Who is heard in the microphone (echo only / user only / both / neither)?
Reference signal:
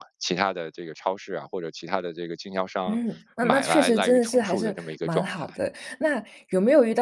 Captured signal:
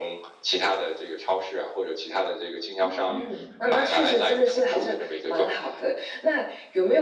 both